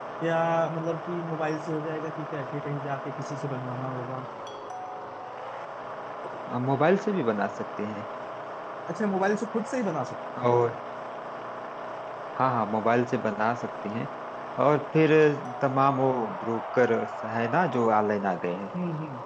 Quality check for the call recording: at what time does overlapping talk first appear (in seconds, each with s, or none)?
none